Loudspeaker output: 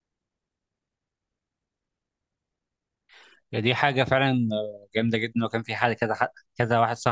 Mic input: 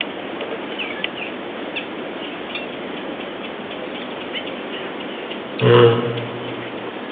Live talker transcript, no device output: مم.

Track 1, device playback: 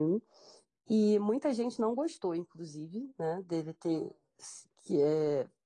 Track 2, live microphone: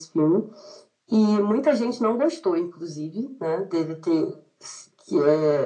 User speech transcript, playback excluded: none

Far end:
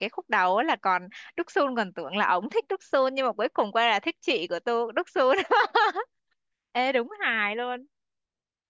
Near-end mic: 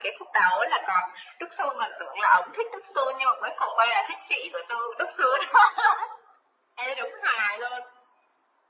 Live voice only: none

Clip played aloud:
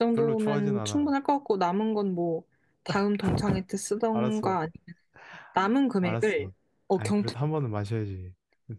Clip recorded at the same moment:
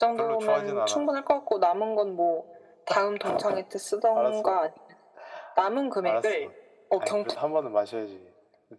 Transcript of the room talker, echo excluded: none

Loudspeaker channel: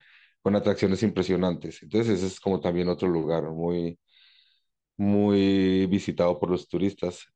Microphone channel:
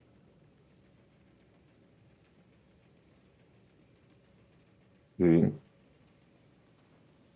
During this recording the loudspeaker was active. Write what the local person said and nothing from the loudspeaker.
Sí,

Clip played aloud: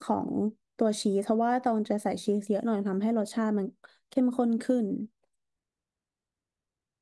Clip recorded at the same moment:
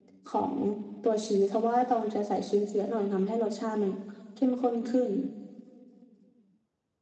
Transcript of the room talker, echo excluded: none

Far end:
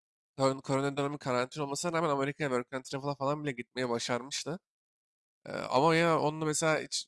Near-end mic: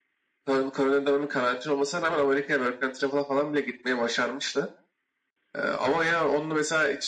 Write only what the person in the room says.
none

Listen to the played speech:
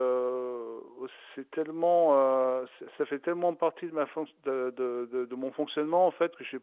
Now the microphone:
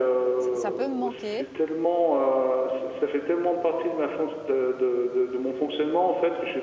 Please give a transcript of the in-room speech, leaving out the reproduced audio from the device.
ça, ça peut me manquer.

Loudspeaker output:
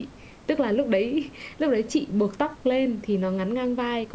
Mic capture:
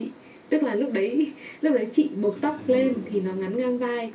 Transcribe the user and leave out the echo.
nói chuyện sai người

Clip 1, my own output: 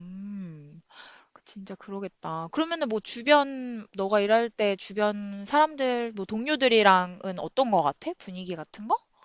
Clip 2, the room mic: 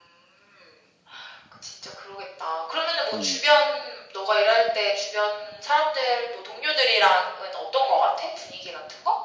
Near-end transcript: 음.

